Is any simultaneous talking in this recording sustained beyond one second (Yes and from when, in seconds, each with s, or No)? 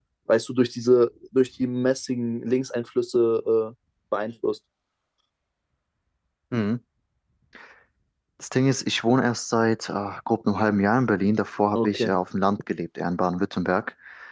No